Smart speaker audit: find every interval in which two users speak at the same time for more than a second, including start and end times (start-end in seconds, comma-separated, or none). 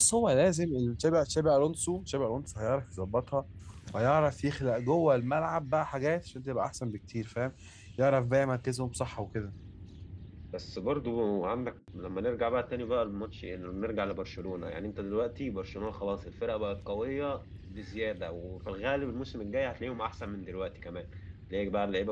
none